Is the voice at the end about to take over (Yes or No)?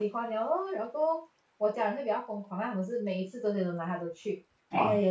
No